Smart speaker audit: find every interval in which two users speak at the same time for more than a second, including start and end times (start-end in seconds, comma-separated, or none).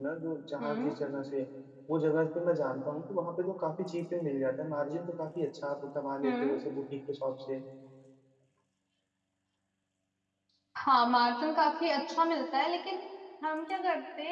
none